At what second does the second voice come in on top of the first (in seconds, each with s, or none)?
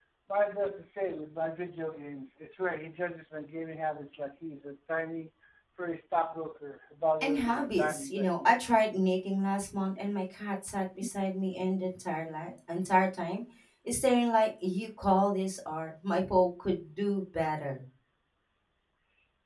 7.2 s